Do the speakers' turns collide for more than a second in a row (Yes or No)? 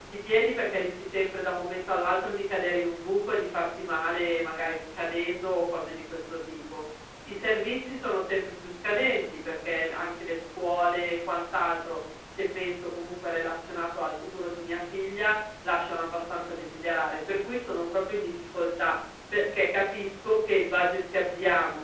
No